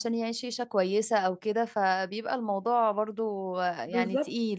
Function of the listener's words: taking over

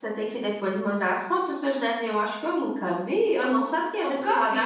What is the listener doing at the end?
listening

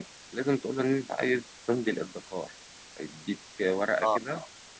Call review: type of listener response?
listening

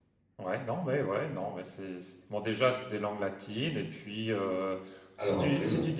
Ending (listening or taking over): listening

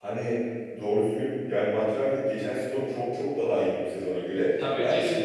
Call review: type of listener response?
listening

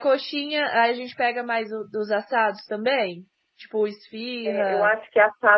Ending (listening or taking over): taking over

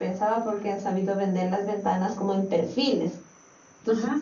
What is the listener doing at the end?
listening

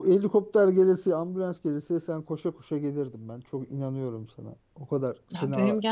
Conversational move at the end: taking over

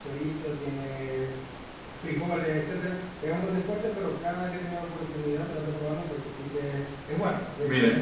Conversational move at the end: taking over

